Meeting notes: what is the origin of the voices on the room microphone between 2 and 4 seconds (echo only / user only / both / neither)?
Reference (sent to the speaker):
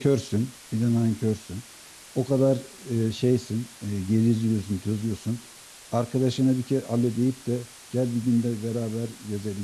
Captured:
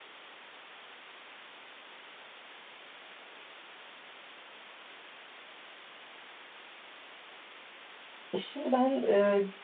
neither